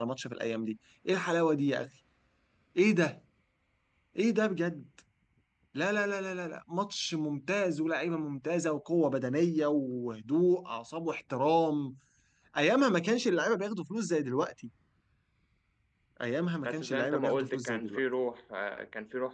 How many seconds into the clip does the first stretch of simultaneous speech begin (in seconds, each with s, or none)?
16.6 s